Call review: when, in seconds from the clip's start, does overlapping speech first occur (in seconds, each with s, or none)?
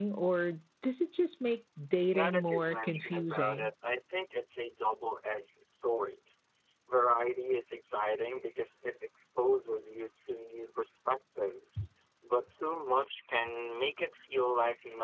2.1 s